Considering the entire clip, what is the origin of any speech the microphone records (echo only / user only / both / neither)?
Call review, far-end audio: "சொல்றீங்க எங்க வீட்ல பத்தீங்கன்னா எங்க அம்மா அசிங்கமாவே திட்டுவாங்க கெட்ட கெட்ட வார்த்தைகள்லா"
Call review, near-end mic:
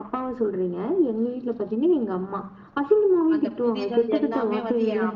both